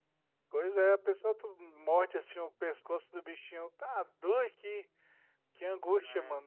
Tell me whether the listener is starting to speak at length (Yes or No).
Yes